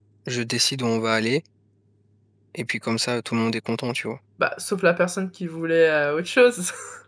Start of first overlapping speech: none

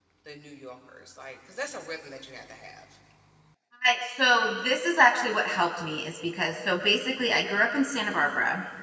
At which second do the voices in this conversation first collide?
none

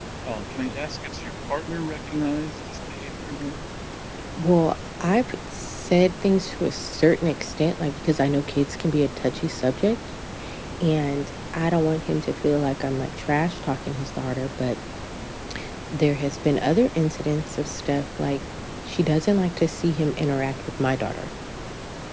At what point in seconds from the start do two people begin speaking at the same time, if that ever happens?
none

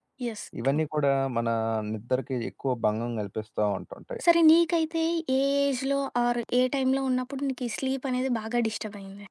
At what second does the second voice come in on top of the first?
none

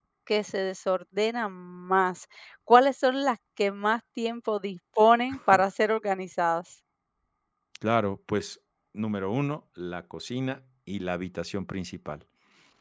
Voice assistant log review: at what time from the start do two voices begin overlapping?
none

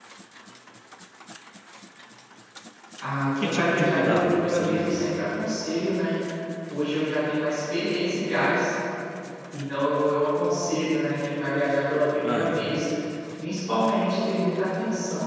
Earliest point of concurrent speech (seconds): 3 s

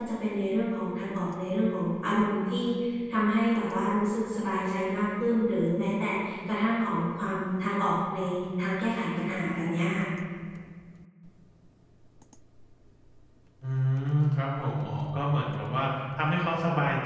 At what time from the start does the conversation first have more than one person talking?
none

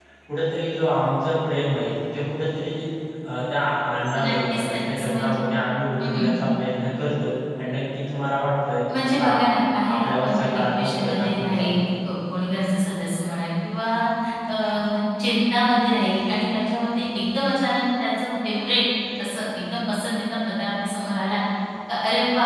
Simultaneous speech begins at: 4 s

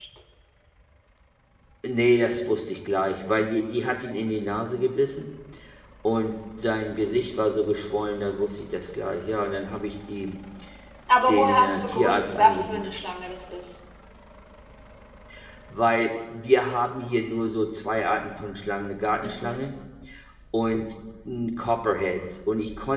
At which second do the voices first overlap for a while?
11 s

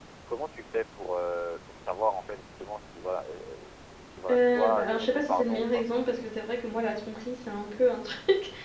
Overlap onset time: 4 s

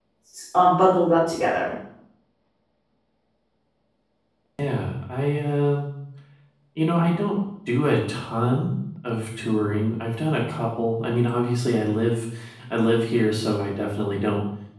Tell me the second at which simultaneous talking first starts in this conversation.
none

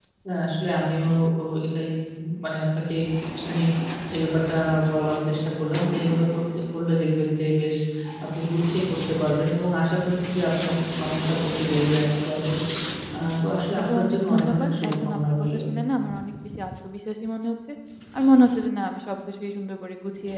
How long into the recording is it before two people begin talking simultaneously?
14 s

